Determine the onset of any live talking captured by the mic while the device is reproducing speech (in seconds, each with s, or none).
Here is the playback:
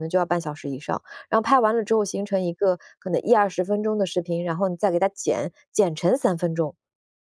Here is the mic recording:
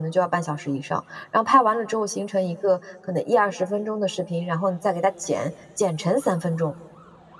none